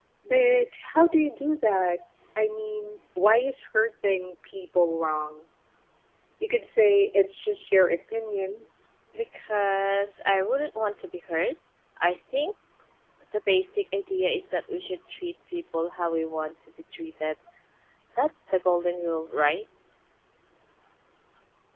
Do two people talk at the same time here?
No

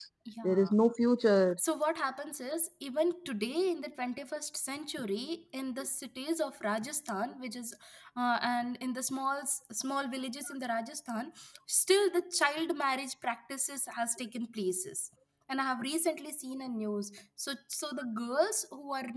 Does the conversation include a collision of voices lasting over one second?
No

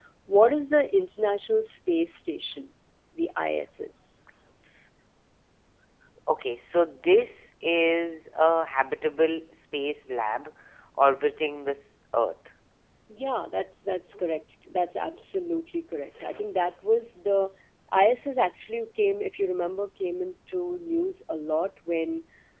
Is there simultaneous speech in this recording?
No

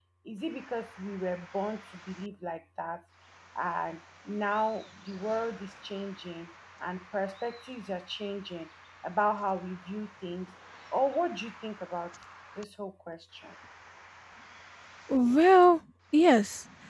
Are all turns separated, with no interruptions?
Yes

